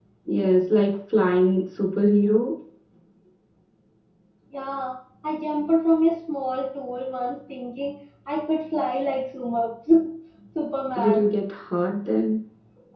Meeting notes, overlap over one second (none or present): none